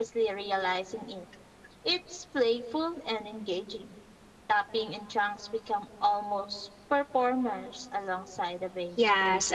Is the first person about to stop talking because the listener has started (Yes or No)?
Yes